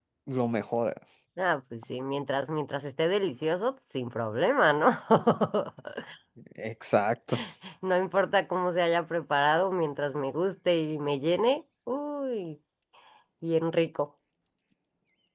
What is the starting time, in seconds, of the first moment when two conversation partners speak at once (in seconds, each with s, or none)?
none